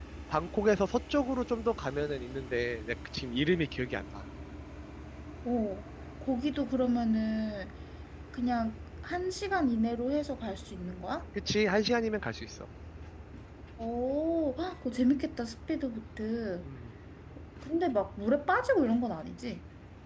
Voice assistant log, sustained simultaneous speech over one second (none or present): none